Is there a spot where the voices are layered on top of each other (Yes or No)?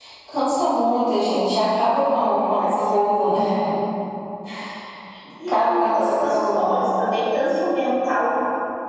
Yes